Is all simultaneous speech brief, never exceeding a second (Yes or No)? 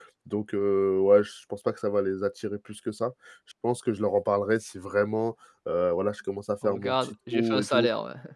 No